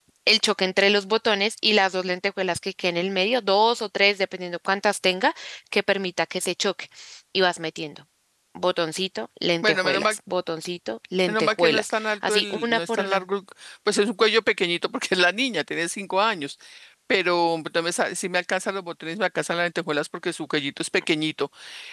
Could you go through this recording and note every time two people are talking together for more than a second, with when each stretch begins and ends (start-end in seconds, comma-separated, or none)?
11.3-13.2